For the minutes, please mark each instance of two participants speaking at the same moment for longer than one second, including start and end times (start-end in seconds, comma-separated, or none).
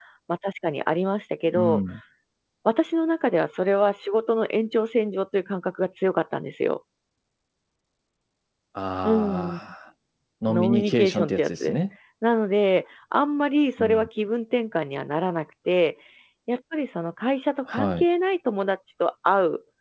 10.5-11.8